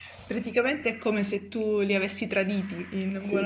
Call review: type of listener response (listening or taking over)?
taking over